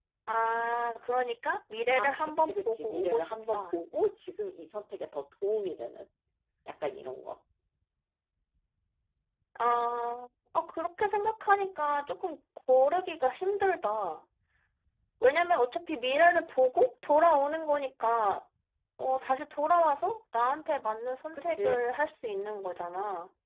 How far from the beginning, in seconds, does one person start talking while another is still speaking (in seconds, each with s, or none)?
1.9 s